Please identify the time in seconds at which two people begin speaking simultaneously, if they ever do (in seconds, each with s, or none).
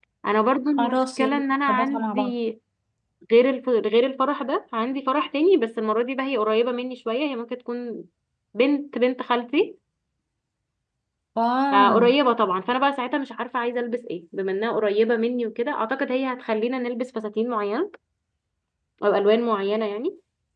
0.8 s